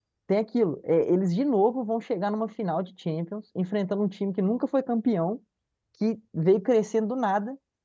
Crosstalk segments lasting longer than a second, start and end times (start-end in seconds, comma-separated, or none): none